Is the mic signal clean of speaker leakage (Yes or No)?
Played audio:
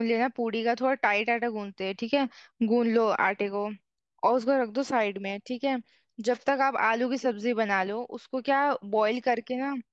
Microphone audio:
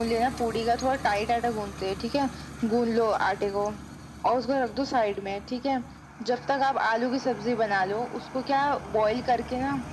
No